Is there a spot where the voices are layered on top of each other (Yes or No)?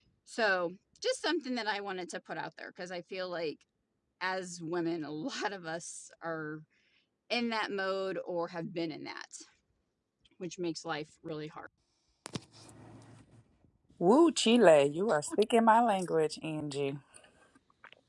No